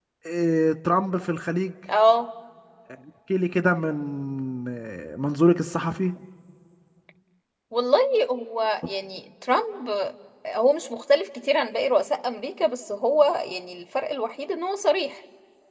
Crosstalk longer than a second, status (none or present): none